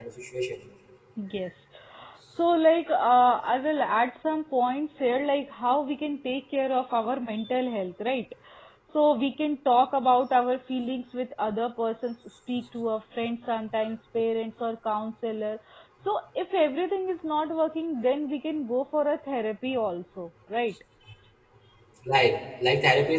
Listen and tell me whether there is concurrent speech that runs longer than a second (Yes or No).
No